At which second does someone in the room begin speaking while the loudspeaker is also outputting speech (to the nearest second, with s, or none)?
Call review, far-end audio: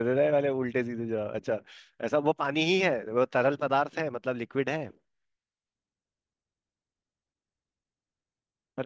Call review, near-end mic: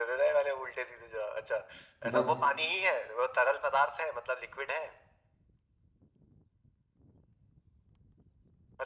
2 s